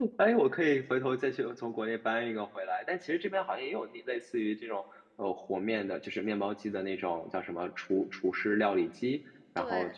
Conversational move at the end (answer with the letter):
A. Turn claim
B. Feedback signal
B